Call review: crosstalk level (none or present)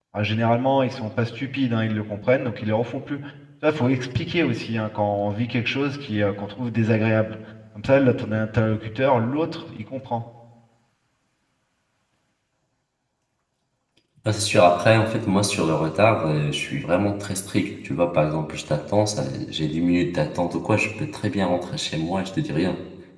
none